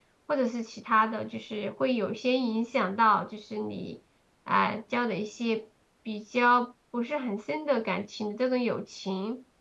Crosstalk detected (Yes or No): No